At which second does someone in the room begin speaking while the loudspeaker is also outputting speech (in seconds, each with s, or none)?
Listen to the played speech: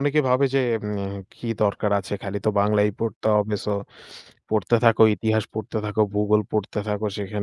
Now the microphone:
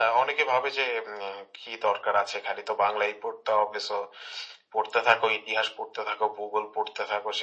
none